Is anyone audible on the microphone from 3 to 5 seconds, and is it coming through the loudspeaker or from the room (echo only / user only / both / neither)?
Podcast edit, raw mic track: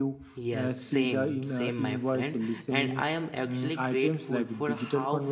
both